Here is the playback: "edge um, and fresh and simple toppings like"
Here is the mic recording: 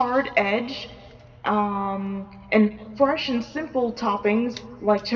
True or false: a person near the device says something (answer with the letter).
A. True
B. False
B